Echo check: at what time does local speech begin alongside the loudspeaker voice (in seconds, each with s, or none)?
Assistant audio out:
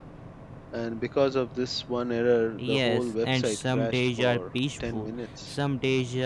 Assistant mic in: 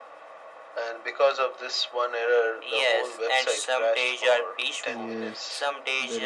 4.9 s